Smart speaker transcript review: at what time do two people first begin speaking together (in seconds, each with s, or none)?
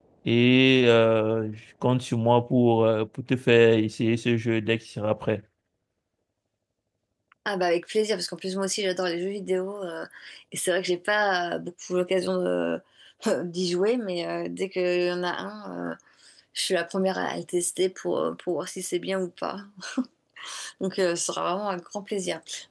none